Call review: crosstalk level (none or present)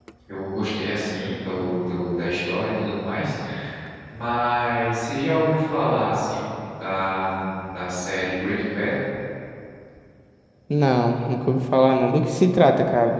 none